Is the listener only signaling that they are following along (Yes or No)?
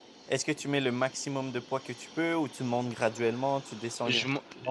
No